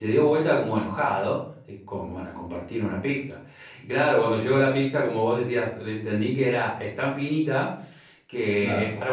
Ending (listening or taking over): listening